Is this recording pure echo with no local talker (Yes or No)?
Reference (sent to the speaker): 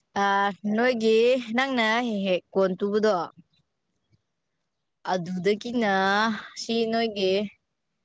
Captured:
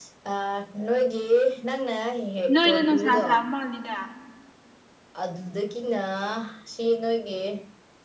No